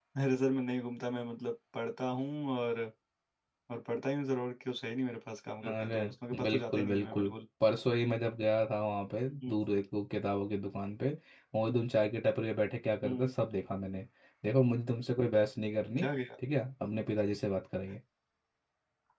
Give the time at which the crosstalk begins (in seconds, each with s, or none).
5.7 s